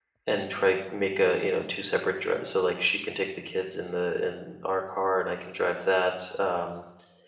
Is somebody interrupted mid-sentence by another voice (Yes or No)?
No